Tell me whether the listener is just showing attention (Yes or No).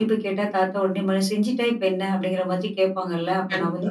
Yes